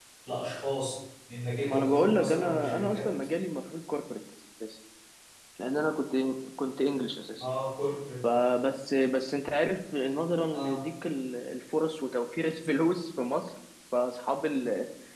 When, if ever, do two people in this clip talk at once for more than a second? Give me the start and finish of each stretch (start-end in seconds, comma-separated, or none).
1.6-3.1